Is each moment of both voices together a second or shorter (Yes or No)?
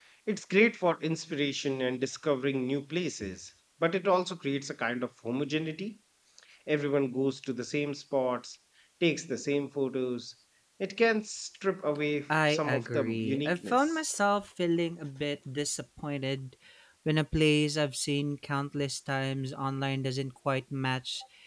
No